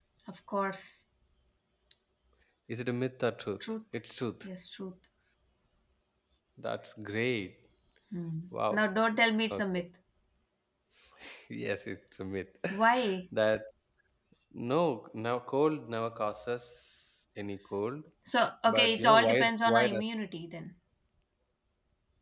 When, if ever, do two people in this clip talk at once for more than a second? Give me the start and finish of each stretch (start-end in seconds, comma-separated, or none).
18.7-20.0